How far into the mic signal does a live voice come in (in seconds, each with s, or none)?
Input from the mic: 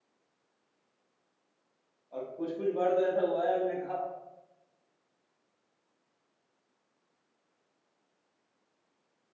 2.1 s